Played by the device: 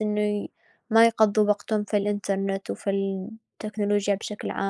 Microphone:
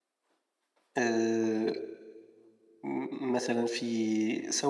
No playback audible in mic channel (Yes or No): Yes